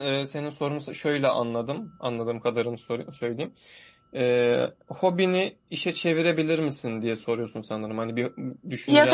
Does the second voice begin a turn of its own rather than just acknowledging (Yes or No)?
Yes